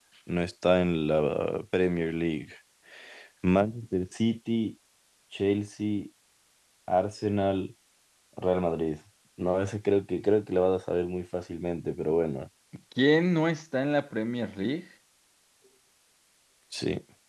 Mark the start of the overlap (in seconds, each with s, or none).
none